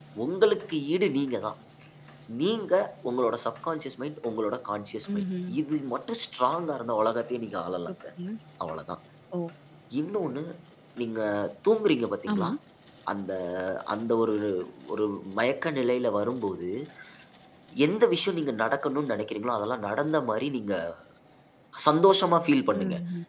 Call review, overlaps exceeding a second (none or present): none